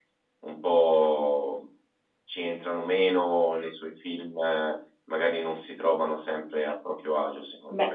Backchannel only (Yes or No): No